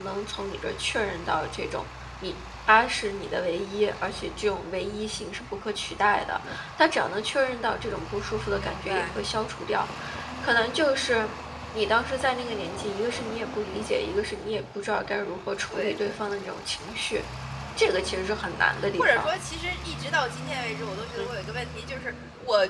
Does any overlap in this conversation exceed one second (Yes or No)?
Yes